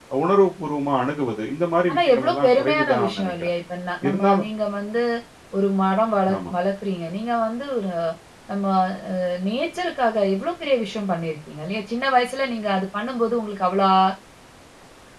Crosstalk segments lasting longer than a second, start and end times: 1.9-3.5

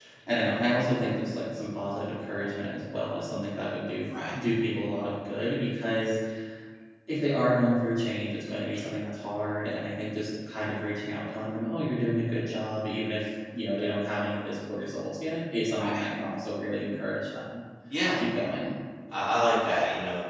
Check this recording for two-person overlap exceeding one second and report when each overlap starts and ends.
none

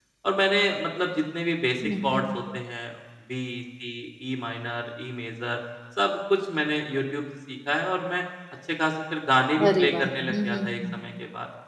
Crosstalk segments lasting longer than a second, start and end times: 9.7-10.9

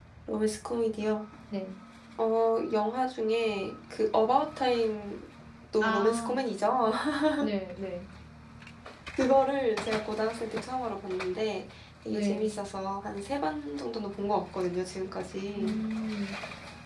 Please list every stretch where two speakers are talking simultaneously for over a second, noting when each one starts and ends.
none

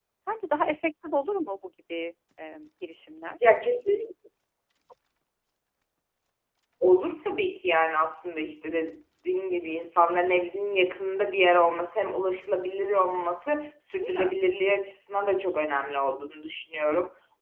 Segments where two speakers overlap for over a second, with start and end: none

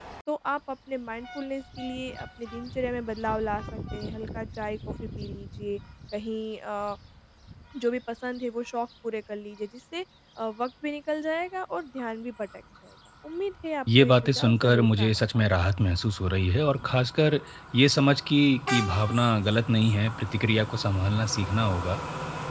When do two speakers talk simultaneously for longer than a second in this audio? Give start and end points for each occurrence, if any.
14.0-15.6

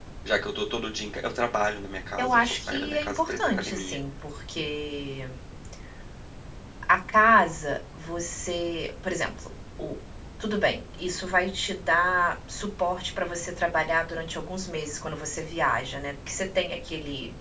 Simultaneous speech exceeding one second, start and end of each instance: 2.2-4.0

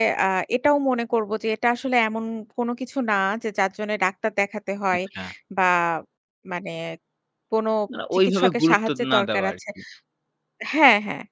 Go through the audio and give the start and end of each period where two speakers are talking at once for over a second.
8.3-9.5

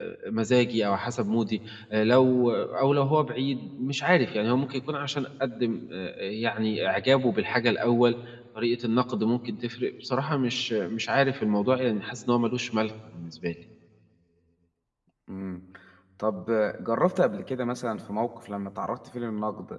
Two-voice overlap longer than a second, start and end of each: none

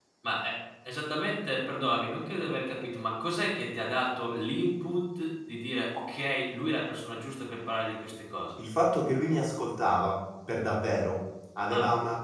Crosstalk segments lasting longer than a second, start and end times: none

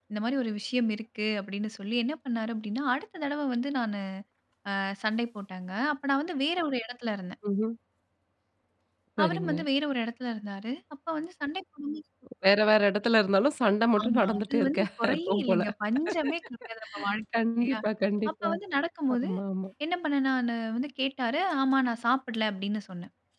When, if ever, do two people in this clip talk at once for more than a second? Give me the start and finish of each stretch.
14.0-15.6

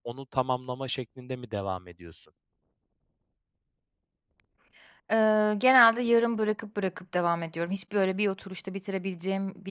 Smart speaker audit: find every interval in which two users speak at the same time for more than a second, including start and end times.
none

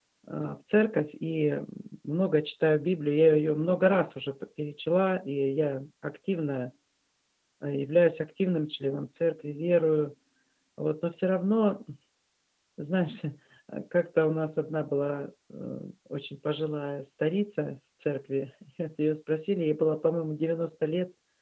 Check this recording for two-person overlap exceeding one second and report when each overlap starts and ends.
none

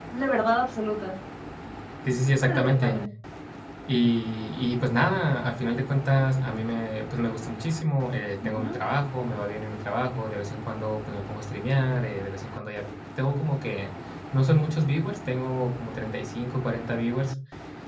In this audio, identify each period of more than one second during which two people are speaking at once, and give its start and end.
none

